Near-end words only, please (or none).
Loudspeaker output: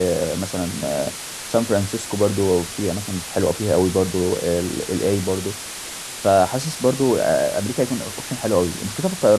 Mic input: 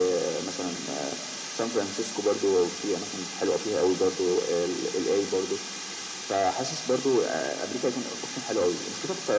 none